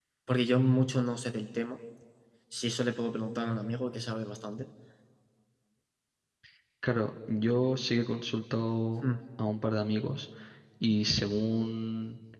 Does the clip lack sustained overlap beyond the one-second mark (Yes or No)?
Yes